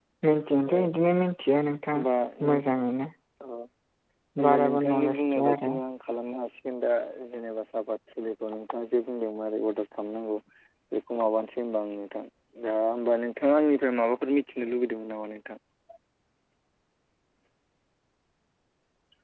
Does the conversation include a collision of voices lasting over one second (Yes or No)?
Yes